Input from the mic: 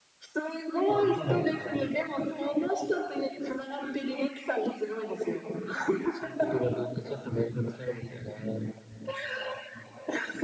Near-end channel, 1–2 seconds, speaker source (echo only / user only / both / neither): echo only